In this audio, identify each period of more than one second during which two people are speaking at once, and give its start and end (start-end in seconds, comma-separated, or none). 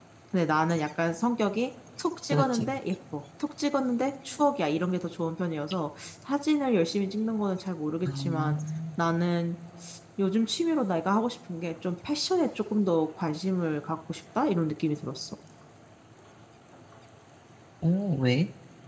none